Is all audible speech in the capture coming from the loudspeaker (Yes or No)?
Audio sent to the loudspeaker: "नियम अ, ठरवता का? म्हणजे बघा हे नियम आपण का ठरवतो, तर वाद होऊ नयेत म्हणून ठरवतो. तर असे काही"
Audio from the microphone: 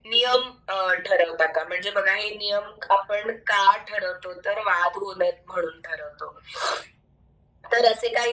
Yes